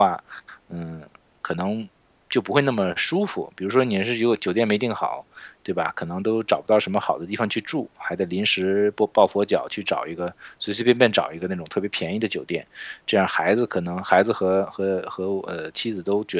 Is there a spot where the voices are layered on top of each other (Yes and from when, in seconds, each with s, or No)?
No